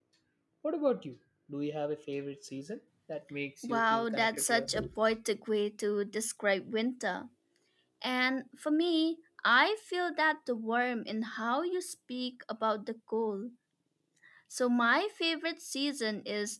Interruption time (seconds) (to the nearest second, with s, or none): 4 s